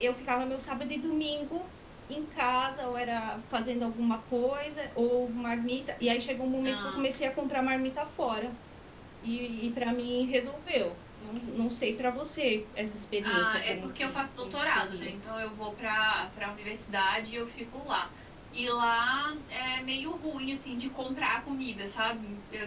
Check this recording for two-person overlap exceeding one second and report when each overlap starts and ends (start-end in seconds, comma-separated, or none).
13.2-15.2